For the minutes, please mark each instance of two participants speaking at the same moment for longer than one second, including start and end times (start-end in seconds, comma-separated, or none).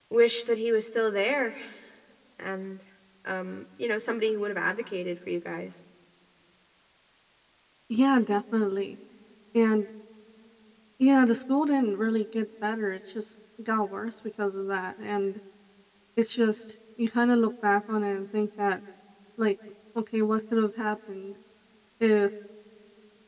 none